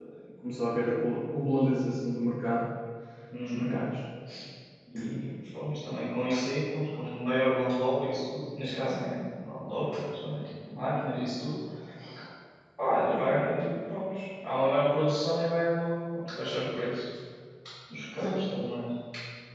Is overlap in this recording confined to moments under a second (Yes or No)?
Yes